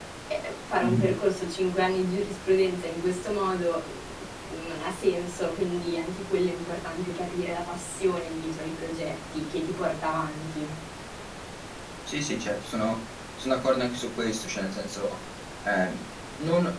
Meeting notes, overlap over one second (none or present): none